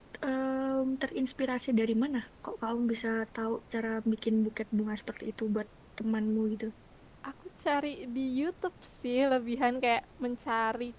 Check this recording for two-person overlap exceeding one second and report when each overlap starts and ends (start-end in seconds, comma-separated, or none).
none